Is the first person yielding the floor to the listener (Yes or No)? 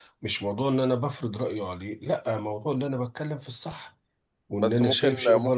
Yes